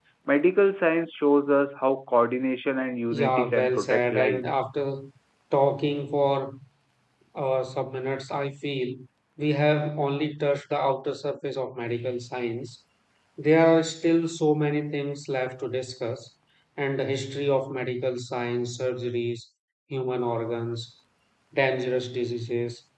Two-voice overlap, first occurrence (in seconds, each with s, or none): 3.1 s